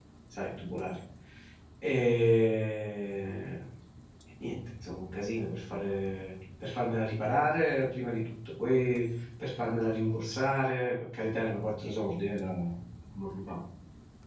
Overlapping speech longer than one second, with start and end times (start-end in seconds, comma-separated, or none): none